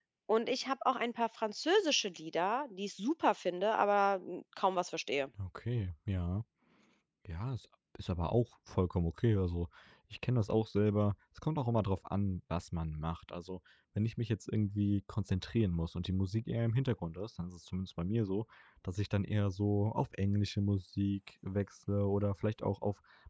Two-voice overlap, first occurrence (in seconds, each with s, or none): none